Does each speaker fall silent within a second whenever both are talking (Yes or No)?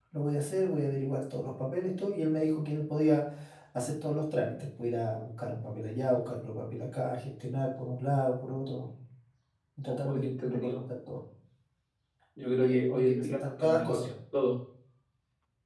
No